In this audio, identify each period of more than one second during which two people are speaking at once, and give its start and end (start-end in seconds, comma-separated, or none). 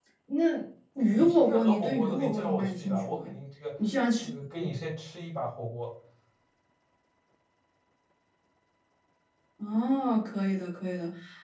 1.1-3.2